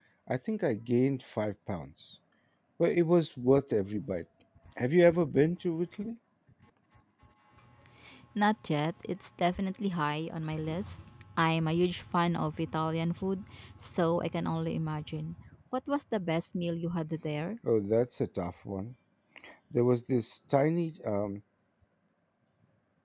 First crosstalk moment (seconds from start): none

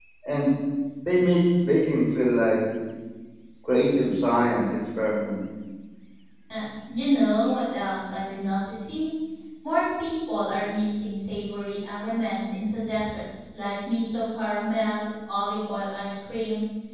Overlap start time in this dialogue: none

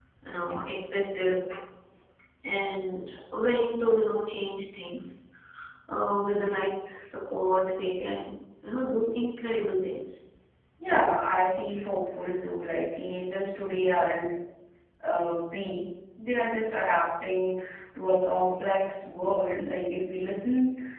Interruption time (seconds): none

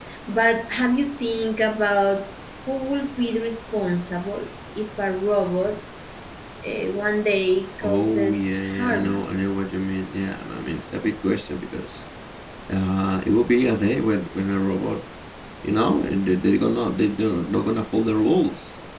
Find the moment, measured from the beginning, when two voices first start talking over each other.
7.8 s

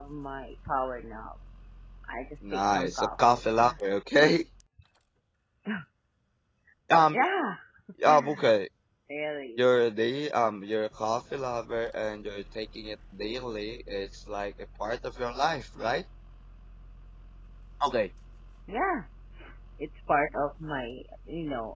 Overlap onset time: 2.5 s

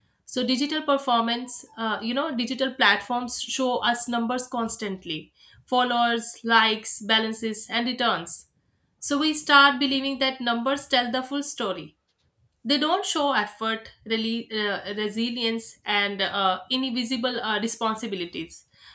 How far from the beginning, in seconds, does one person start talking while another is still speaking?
none

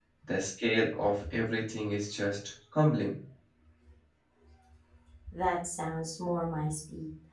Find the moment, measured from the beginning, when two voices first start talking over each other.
none

